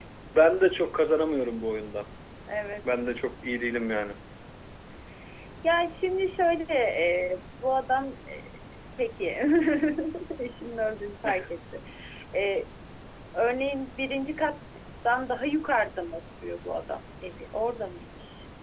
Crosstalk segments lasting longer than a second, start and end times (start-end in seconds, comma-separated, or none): none